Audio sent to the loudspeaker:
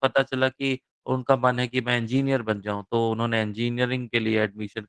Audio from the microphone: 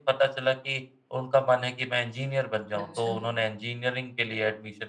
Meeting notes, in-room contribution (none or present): present